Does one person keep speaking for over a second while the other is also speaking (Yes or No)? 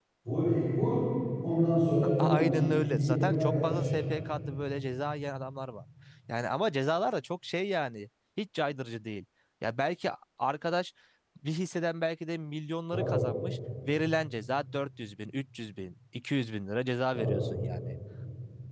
Yes